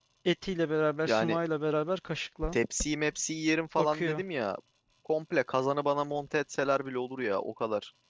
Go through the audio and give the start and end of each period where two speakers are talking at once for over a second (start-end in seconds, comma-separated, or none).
none